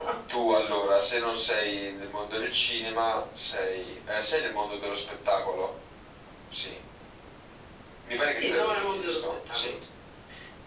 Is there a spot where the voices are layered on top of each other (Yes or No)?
Yes